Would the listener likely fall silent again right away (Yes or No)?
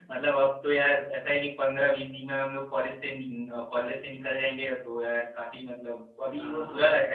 Yes